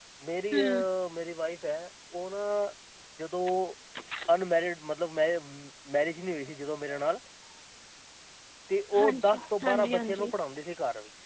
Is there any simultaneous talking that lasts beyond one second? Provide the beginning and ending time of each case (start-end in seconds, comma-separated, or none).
9.0-10.3